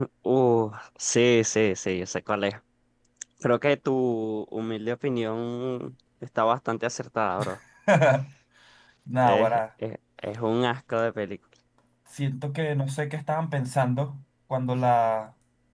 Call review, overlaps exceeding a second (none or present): none